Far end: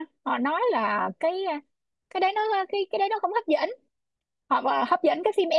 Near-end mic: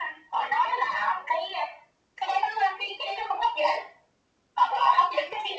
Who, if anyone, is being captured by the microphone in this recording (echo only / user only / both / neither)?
echo only